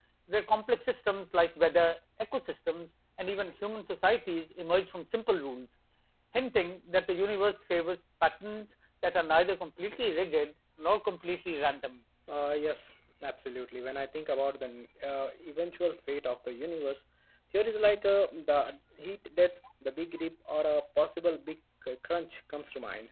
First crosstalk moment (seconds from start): none

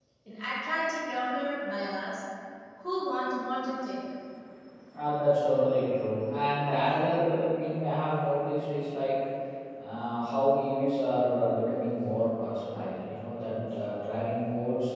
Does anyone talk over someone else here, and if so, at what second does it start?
none

